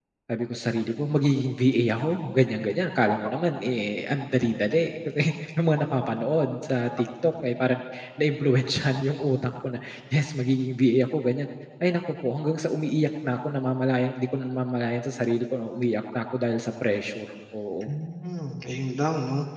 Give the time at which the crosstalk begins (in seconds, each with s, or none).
none